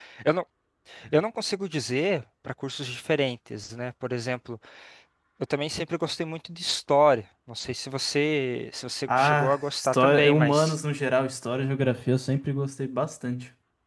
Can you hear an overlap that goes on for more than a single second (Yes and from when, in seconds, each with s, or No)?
Yes, from 9.1 s